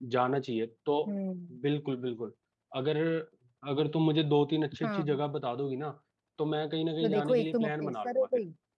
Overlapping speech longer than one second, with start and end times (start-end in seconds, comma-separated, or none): 7.0-8.3